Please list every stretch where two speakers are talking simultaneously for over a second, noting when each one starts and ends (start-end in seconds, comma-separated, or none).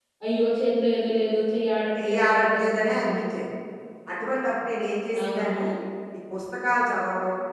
2.0-3.2